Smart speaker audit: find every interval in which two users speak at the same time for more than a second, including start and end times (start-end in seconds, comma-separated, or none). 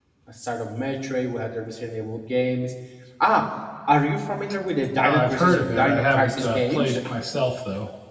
5.0-7.0